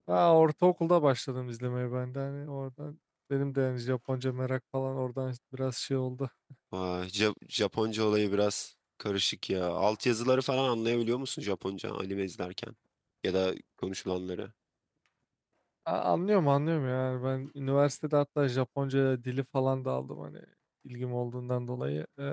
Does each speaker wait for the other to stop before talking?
Yes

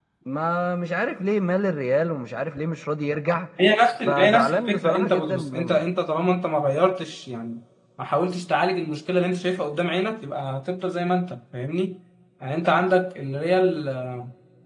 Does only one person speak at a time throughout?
No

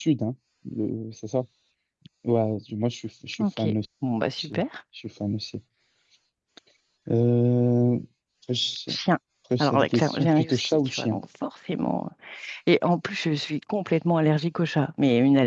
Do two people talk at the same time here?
Yes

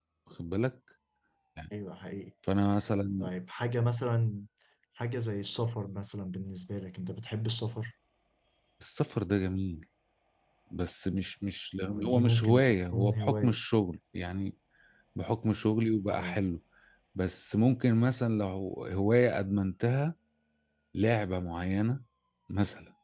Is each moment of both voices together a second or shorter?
No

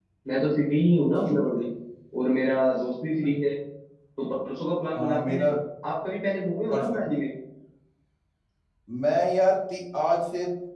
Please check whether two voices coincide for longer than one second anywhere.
No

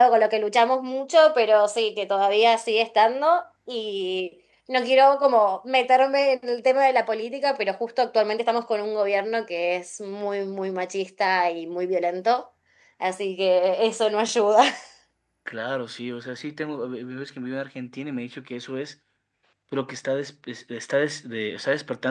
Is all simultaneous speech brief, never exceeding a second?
Yes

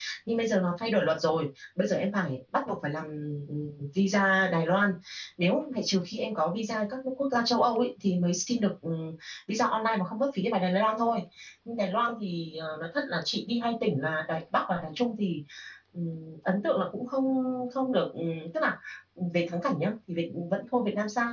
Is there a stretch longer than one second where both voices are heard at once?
No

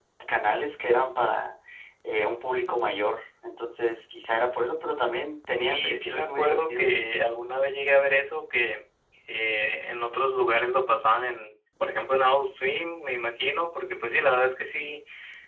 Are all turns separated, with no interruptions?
No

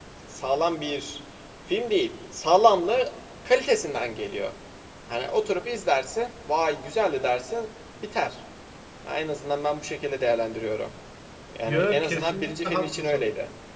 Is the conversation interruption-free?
No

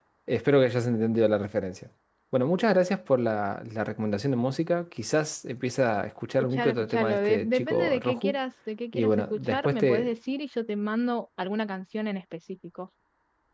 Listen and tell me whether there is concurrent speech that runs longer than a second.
Yes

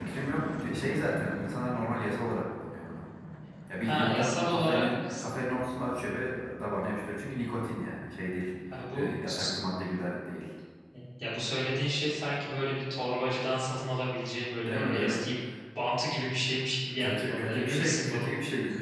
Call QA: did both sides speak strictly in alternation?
No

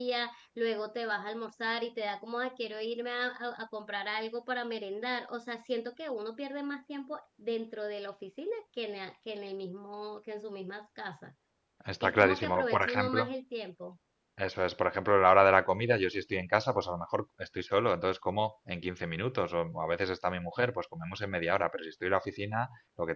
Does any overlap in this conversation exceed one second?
Yes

